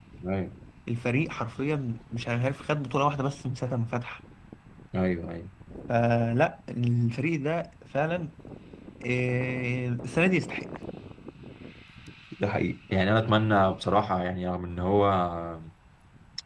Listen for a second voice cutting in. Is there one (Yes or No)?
No